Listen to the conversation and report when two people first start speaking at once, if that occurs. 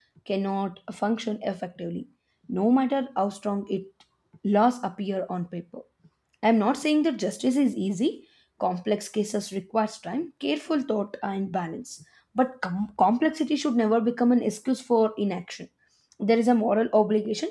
none

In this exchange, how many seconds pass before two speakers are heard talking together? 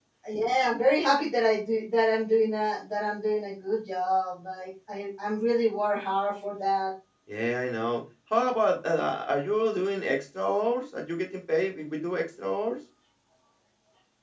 none

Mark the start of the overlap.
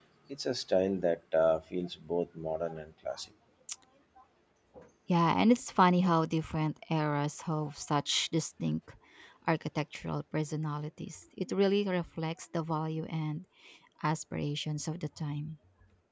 none

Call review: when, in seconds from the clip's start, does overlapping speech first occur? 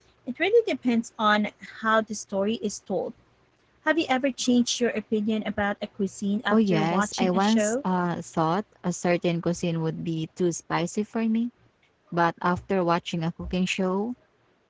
6 s

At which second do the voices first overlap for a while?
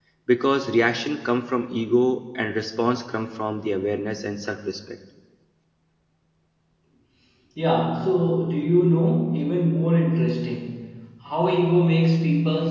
none

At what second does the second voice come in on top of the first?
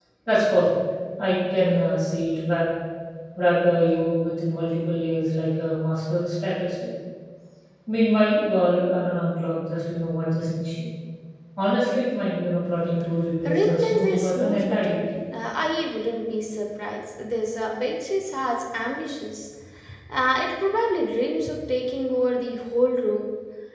13 s

